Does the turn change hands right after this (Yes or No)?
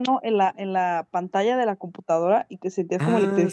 Yes